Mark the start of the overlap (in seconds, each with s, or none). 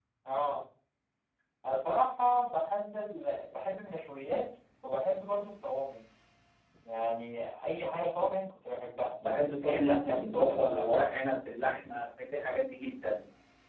9.6 s